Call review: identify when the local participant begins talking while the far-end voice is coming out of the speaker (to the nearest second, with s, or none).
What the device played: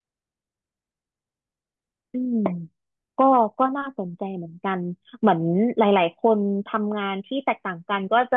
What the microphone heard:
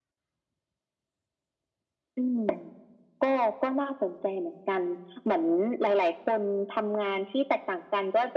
none